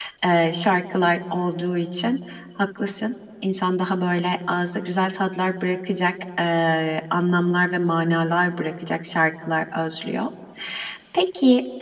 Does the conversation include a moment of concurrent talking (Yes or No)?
No